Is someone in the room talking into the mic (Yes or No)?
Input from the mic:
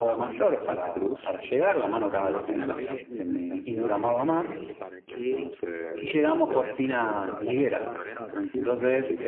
Yes